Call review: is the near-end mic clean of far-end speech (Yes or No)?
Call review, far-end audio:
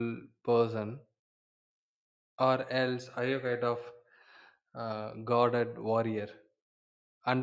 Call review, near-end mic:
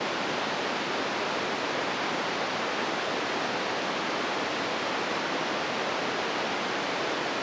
Yes